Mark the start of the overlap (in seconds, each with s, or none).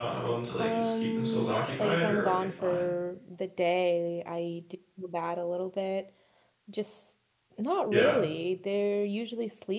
0.6 s